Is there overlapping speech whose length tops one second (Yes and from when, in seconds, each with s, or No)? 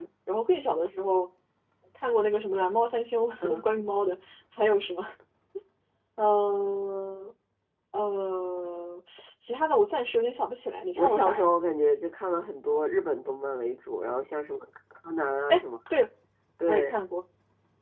No